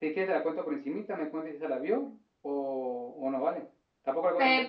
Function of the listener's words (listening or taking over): taking over